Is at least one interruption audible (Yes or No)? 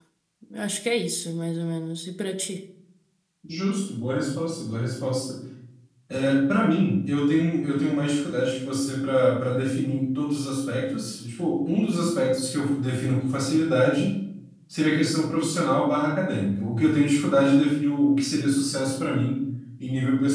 No